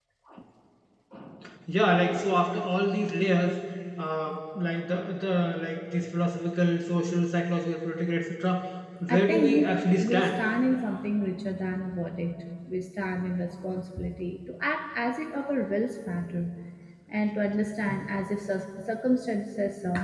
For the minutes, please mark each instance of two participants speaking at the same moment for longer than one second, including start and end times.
9.1-10.3

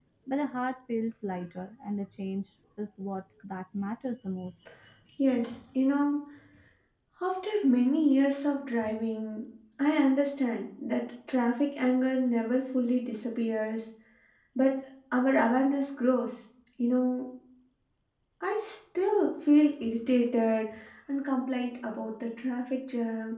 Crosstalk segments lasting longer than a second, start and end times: none

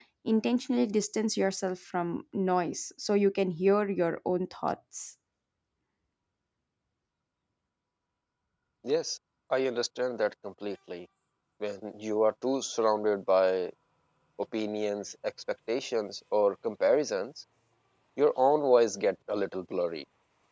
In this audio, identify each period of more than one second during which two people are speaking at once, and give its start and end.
none

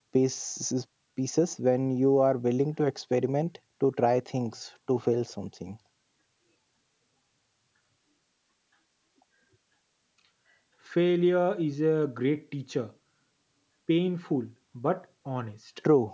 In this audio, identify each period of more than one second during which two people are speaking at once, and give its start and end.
none

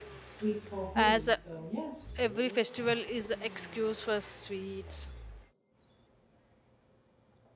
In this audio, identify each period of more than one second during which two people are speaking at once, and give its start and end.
none

